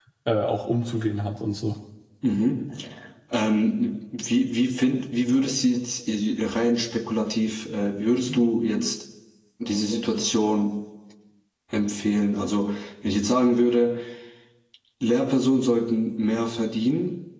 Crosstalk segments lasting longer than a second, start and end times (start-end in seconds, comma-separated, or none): none